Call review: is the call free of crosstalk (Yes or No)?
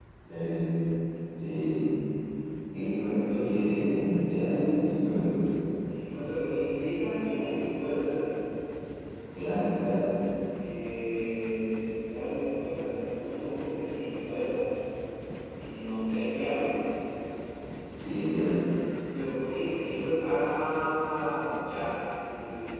Yes